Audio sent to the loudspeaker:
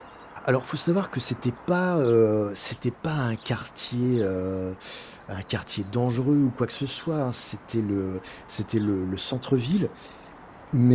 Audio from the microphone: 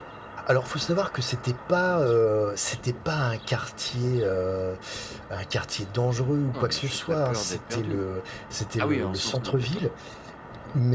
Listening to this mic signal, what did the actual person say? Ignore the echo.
Non, mais juste la peur d'être perdu. Ah oui, en centre-ville, d'accord.

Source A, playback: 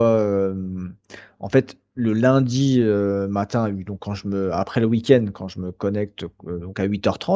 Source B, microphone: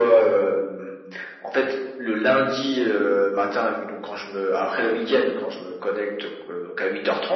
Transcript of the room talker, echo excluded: none

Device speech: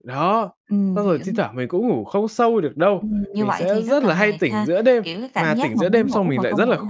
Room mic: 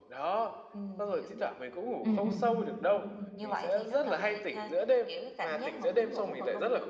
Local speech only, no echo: Ừm, ừm, ừm.

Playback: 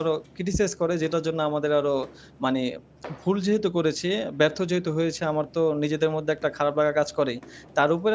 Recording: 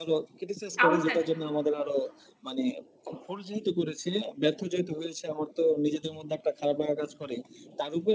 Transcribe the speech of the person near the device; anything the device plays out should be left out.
সাহসটা

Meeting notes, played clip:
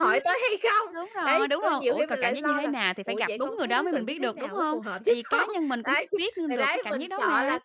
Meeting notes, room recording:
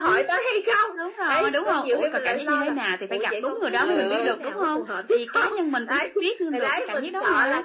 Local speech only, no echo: Ừ.

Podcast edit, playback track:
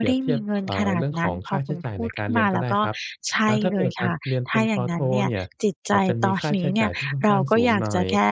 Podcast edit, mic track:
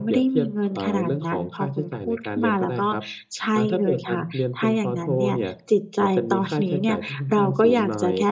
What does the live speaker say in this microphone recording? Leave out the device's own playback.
none

